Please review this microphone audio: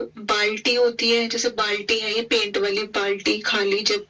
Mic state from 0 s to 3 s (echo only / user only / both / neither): echo only